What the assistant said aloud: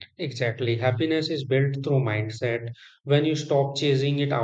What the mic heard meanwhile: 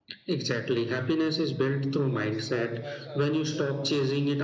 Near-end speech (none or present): present